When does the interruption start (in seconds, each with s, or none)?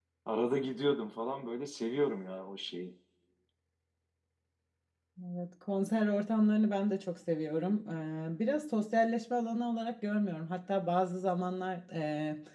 none